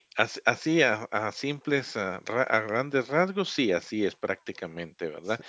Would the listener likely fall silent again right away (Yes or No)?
Yes